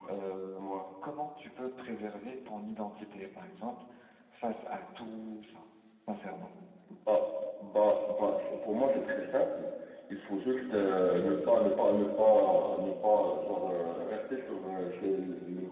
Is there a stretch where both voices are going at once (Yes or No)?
No